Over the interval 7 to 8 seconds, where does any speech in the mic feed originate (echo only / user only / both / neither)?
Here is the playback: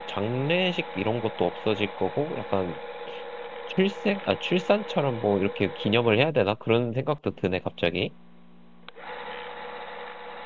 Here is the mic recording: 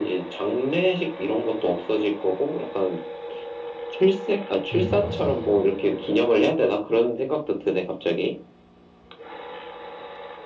echo only